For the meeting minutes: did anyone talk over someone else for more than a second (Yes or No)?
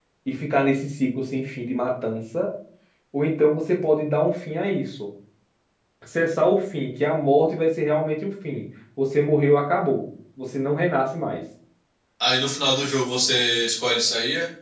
No